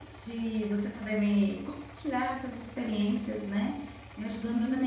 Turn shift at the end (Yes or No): No